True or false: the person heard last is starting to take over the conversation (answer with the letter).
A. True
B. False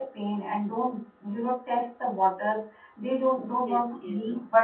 B